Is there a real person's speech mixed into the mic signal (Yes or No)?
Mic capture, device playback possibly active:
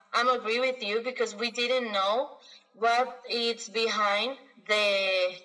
No